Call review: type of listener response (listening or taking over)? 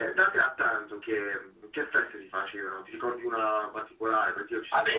taking over